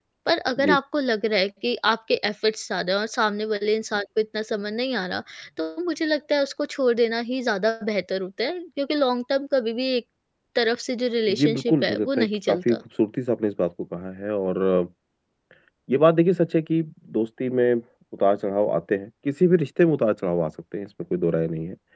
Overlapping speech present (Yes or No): Yes